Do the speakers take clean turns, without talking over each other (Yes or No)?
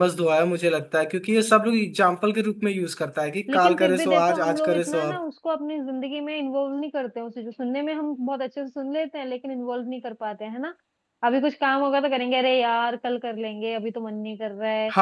No